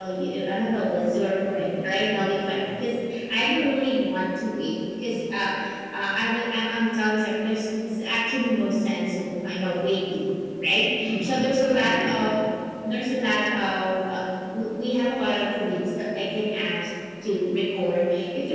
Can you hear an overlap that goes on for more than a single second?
Yes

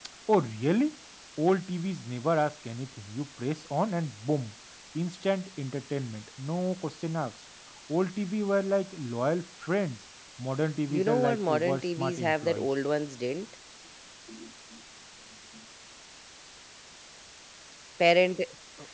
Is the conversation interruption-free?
No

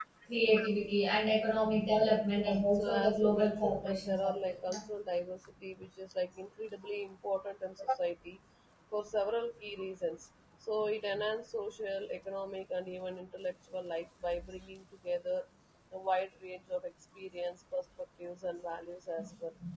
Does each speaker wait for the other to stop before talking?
No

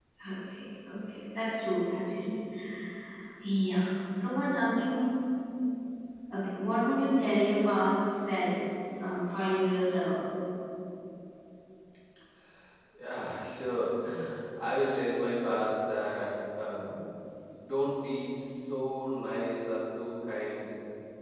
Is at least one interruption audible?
No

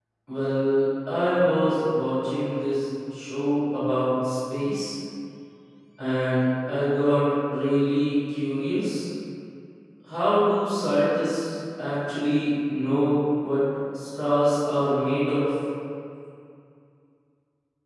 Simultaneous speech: No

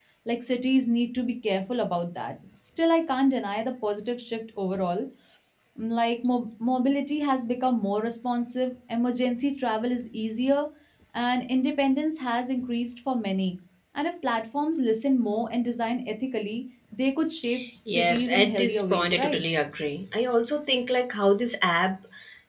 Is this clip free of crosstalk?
No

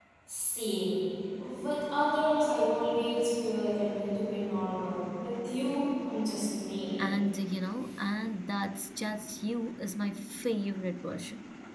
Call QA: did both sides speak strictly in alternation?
Yes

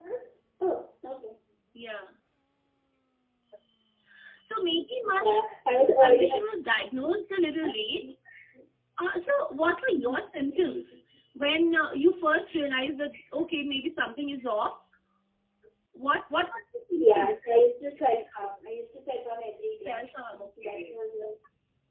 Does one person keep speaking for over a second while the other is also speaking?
No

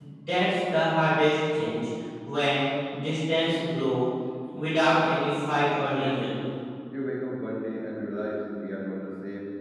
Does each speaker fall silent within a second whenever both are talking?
Yes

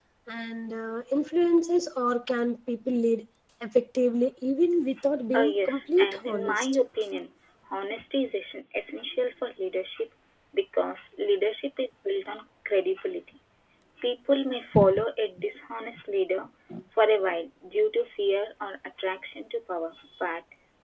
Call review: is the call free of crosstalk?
No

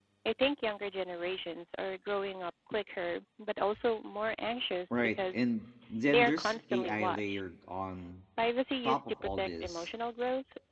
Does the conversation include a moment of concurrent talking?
Yes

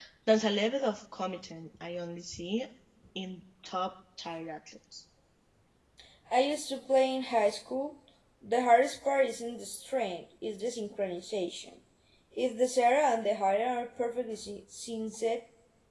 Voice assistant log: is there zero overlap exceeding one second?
Yes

